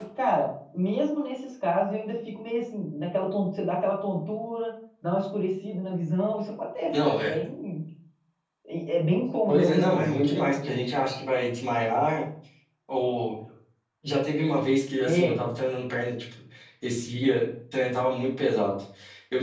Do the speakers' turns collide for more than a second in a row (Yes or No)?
Yes